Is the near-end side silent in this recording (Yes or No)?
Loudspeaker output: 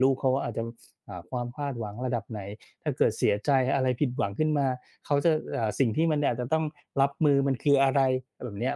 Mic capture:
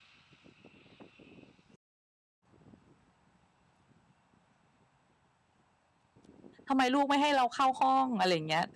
No